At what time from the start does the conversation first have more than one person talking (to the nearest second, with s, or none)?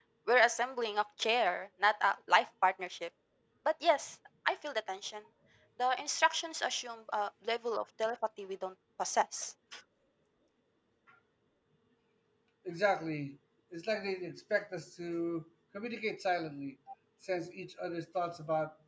none